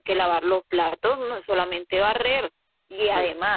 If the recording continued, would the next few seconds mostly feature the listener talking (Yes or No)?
No